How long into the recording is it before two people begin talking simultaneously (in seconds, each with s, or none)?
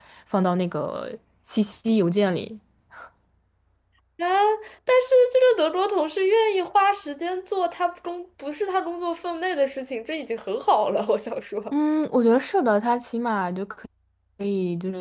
none